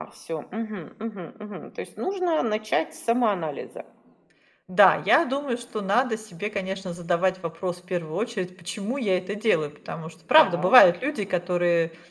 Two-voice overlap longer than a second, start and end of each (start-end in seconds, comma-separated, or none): none